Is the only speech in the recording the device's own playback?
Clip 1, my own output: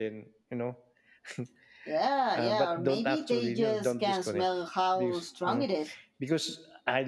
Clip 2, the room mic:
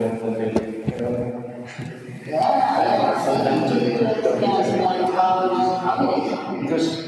Yes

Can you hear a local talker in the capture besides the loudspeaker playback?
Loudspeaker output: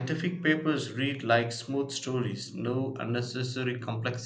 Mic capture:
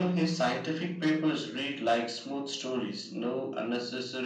No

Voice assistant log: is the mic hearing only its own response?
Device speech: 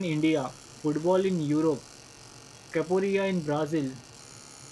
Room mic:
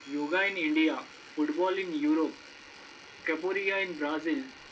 Yes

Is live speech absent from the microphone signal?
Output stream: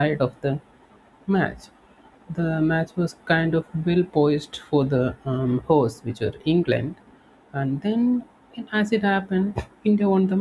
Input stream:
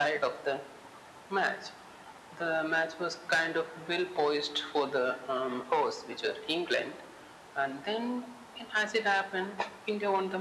Yes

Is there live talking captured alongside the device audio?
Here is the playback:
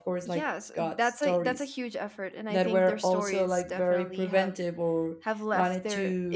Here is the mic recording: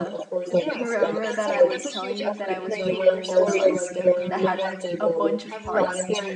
Yes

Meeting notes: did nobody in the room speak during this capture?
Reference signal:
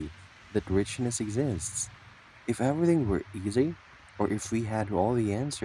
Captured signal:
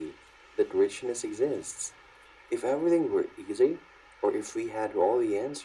Yes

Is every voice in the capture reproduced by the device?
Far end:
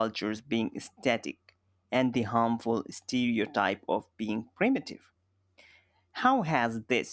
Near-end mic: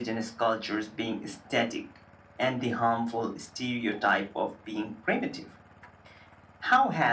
Yes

